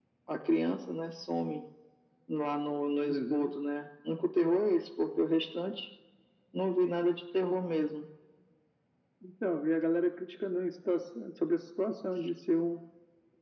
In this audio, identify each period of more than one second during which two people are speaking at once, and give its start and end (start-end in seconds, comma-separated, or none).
none